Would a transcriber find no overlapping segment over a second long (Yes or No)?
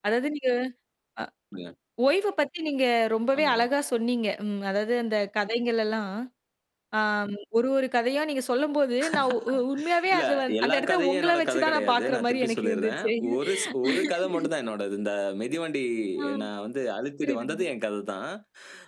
No